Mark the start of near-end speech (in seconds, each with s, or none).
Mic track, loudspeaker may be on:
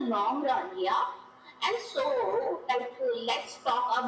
none